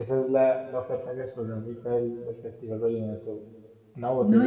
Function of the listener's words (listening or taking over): listening